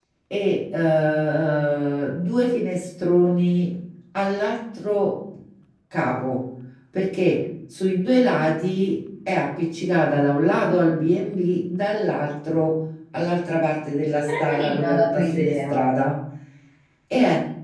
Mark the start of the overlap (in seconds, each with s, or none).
14.1 s